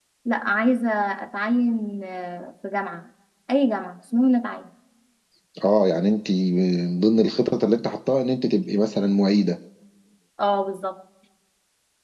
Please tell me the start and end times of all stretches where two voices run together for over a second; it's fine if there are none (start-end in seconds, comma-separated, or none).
none